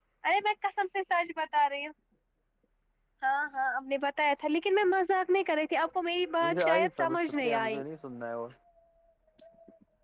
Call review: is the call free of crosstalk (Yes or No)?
No